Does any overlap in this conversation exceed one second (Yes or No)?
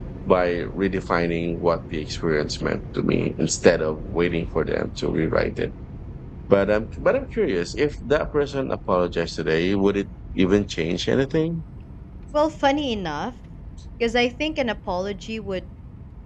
No